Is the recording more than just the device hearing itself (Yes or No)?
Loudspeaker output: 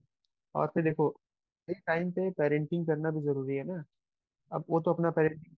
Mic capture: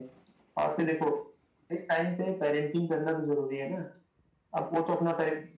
No